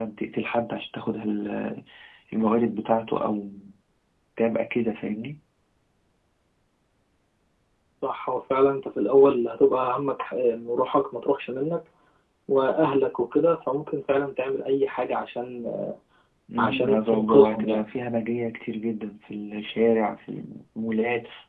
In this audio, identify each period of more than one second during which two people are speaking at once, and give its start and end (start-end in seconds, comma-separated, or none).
16.6-17.9